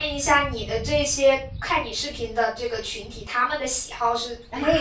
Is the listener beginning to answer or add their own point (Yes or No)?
Yes